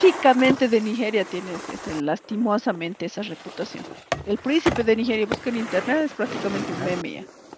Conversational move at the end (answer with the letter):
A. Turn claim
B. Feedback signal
B